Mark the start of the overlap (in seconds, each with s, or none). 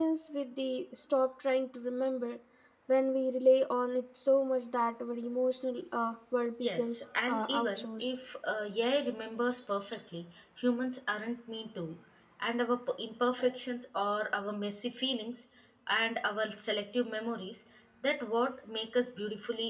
6.6 s